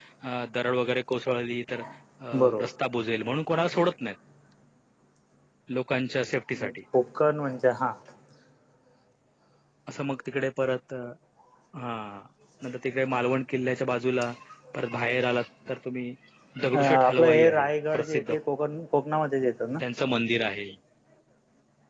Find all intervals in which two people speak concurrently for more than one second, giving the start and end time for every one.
16.7-18.4

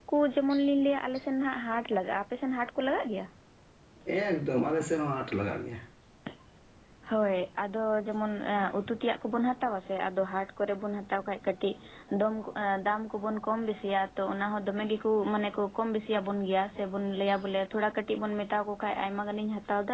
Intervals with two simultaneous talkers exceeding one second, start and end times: none

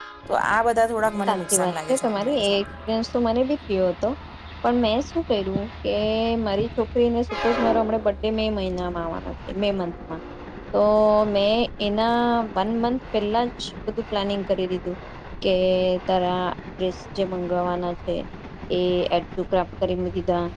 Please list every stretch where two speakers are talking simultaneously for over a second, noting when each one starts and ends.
1.3-2.6

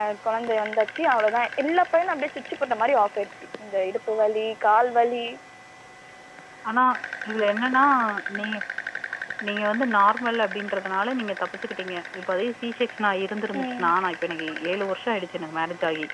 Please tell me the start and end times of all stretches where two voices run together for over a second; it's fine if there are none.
none

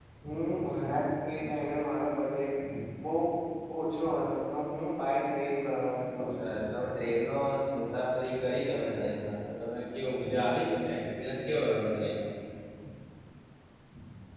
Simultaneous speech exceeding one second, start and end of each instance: none

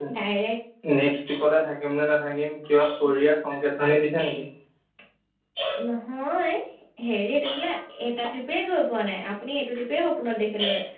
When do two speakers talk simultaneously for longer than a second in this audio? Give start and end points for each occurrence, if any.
none

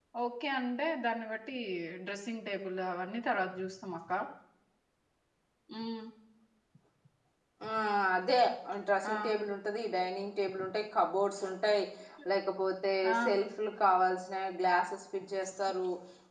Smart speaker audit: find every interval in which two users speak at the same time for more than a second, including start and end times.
none

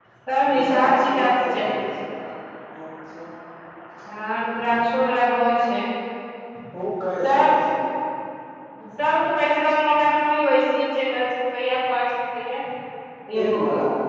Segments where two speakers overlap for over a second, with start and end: 0.5-1.8

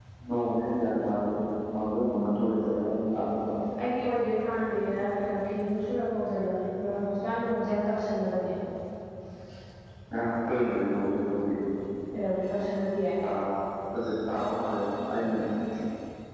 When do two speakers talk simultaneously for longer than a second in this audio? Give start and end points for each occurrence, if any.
none

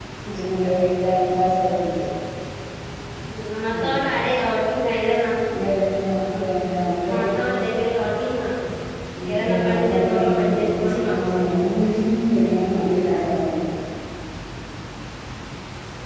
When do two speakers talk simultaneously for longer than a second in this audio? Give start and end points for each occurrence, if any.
9.3-11.4

